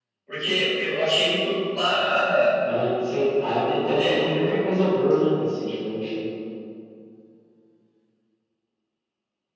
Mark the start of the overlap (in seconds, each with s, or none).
3.4 s